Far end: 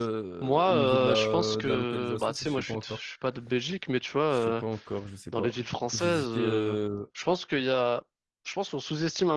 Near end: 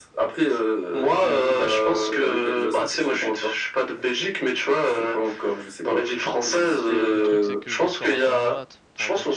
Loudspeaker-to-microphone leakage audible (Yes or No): Yes